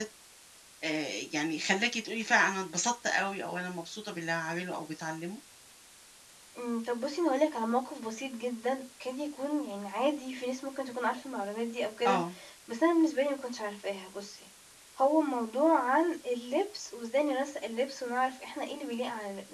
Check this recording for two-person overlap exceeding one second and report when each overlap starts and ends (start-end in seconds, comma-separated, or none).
none